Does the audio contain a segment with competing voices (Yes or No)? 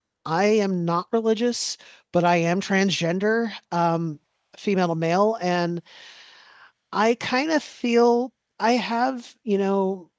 No